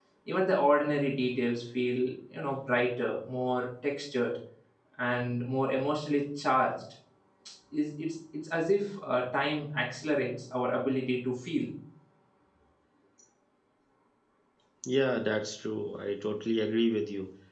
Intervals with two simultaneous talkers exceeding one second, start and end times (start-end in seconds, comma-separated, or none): none